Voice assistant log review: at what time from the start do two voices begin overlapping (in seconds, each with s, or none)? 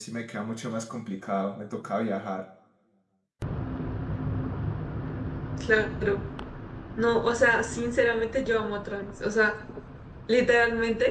none